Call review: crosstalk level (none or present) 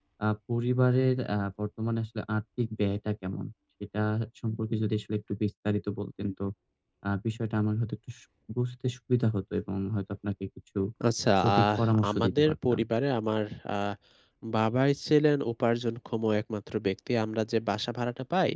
present